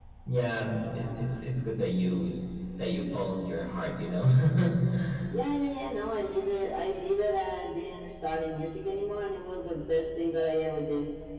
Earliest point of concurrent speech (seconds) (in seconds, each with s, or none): none